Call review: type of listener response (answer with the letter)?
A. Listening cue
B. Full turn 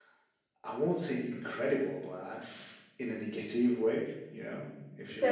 B